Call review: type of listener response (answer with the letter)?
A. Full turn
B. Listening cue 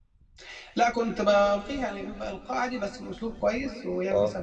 B